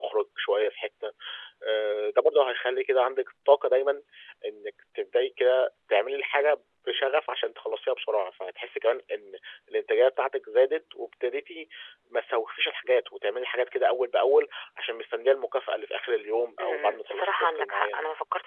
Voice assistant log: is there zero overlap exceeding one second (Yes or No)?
No